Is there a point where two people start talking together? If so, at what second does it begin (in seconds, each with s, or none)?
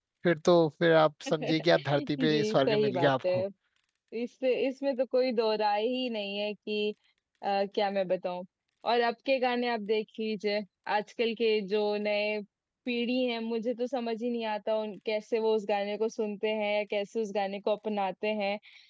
1.4 s